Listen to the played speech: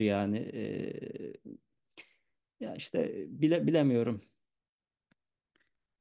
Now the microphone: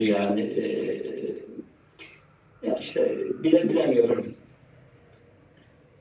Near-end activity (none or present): none